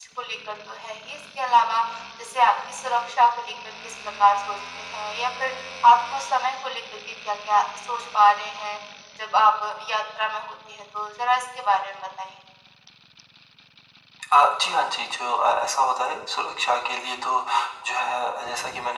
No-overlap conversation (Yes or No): Yes